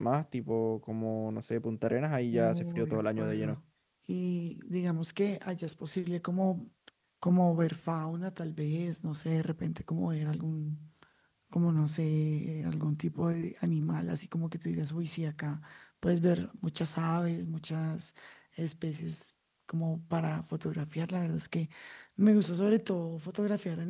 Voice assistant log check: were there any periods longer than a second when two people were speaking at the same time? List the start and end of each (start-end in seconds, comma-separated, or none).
2.3-3.6